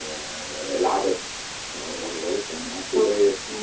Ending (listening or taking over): listening